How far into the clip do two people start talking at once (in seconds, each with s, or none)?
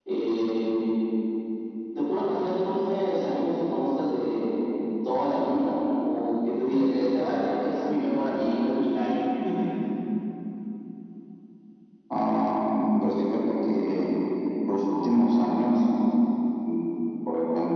none